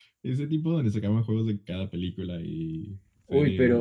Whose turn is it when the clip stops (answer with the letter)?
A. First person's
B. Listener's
B